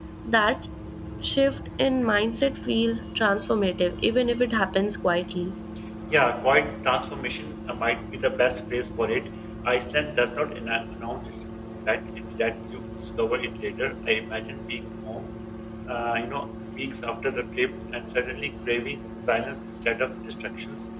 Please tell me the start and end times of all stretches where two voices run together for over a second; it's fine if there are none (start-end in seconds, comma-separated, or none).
none